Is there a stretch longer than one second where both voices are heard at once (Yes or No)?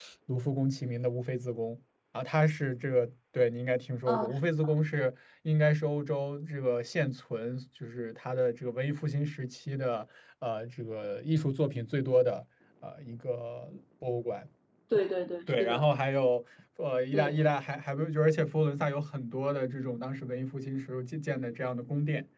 No